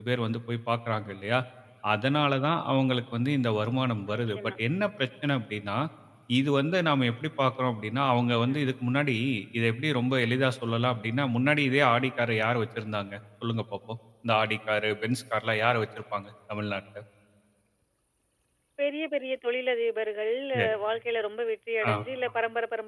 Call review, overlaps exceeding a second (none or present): none